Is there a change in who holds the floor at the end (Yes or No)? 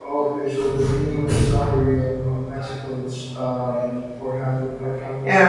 Yes